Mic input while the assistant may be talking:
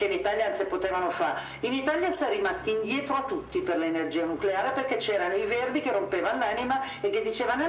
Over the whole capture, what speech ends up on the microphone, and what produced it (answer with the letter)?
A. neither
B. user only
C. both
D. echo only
D